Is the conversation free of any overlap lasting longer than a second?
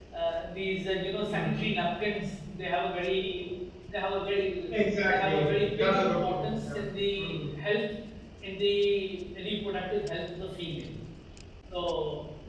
No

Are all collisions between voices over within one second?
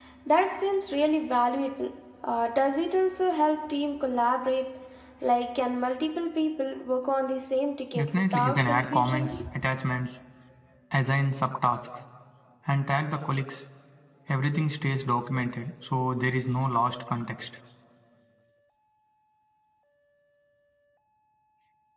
No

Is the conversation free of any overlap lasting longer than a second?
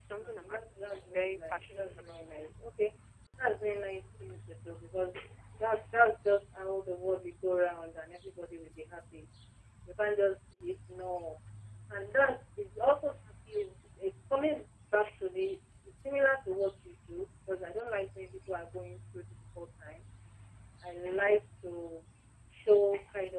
No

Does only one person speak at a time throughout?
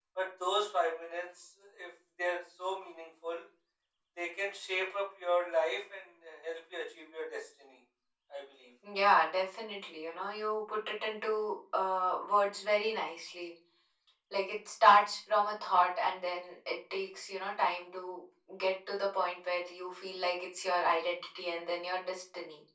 Yes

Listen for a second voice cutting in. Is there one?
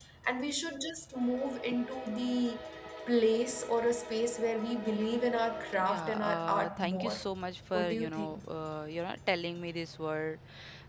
Yes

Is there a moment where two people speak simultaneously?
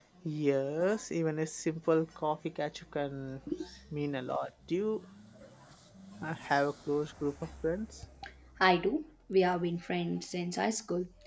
No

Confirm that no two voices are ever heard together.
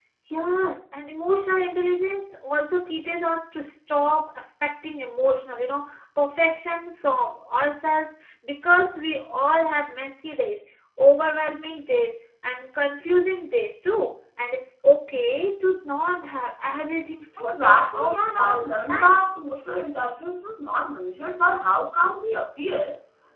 No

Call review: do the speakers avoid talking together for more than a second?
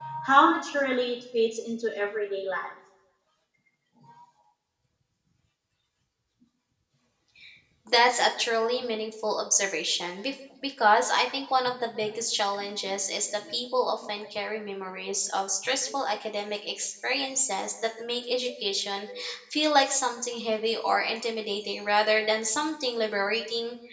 Yes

